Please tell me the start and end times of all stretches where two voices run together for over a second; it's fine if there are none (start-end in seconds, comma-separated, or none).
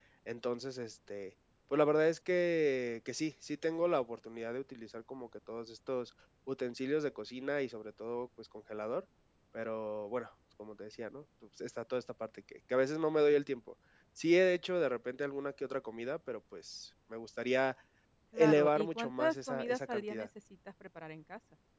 18.4-20.3